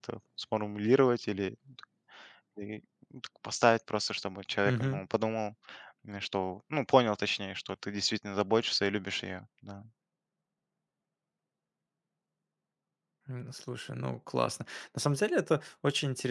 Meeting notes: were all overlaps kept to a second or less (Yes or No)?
Yes